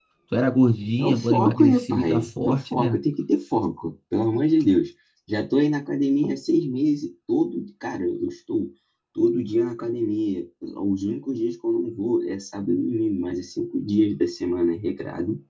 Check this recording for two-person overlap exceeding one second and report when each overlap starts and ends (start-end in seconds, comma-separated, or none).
1.0-3.0